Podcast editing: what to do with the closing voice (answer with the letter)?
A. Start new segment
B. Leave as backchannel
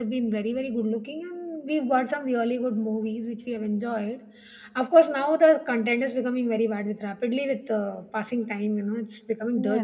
A